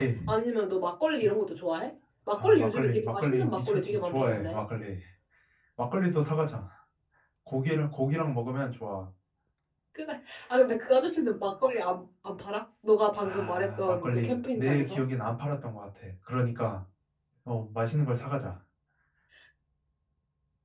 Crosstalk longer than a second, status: present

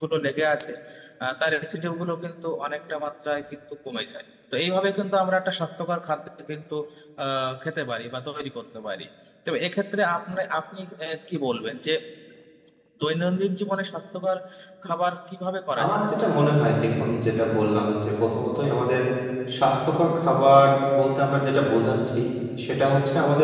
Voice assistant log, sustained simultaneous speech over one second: none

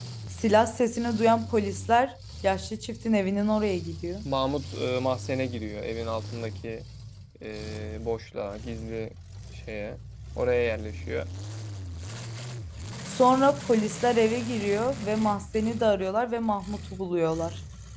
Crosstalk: none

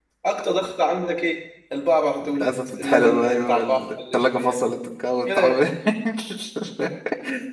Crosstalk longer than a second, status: present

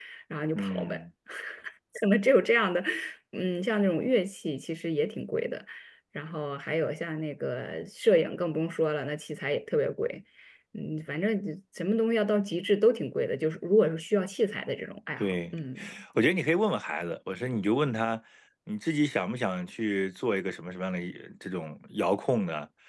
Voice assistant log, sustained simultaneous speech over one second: none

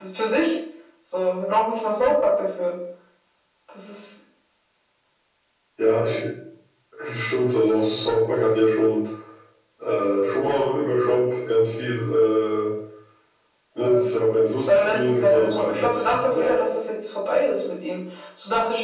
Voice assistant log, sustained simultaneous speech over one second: present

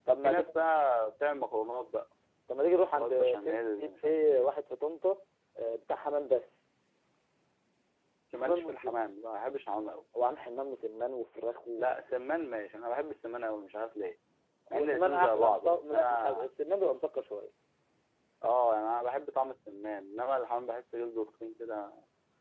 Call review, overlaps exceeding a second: present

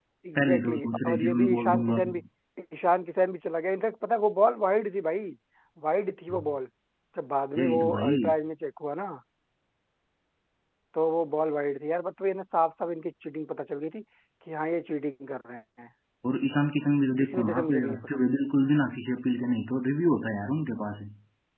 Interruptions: present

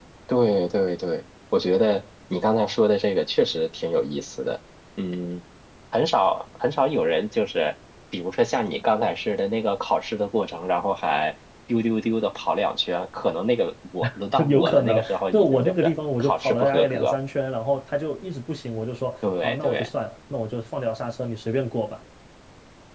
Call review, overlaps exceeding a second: present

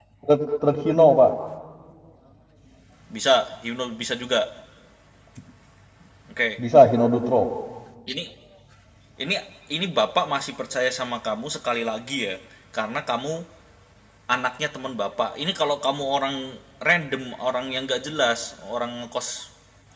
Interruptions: none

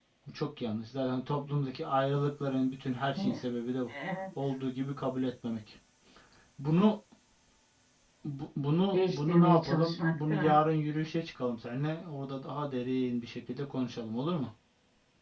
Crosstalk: present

